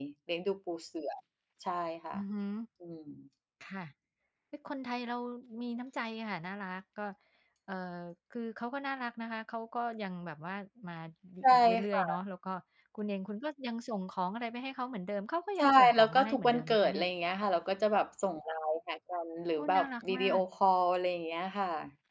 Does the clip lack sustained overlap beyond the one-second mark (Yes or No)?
No